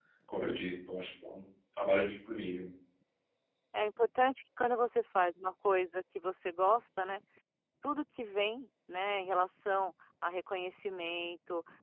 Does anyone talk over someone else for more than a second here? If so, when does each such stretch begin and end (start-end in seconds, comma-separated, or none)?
none